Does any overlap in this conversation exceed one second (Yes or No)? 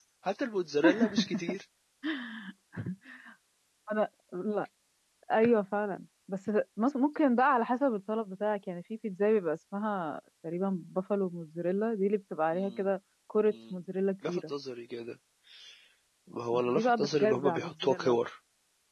Yes